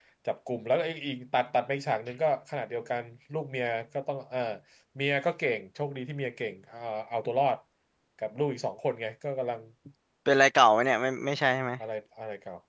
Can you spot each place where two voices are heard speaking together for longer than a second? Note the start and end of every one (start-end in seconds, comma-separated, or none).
none